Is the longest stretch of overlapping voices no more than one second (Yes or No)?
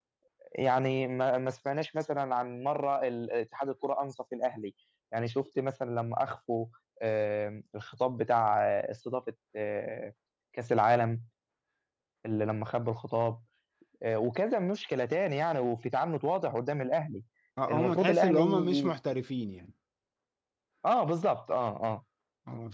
No